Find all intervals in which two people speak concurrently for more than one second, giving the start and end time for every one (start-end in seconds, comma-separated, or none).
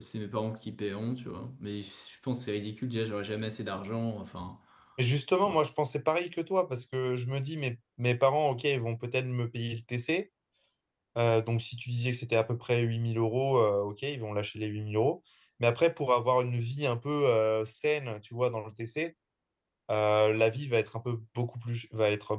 none